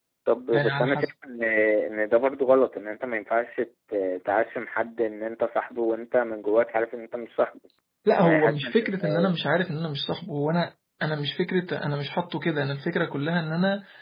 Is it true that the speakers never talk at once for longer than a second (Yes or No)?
No